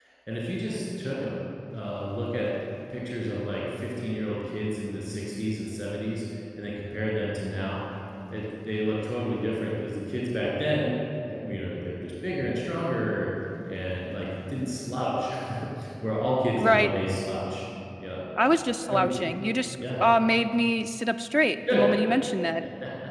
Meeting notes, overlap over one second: none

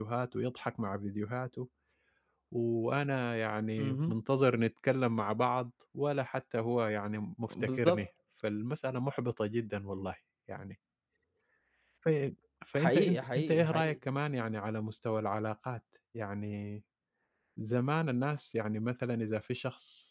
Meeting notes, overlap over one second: present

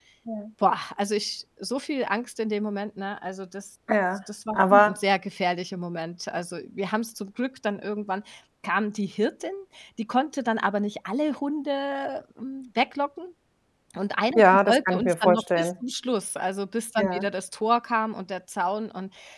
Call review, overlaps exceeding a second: present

